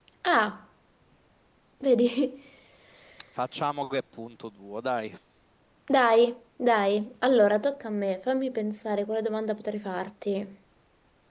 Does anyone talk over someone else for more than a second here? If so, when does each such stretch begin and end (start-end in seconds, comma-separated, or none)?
none